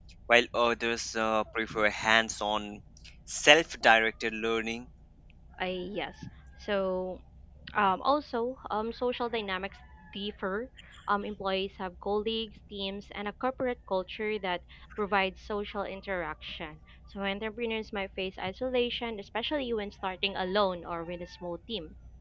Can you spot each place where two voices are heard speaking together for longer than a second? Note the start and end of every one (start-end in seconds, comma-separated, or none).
none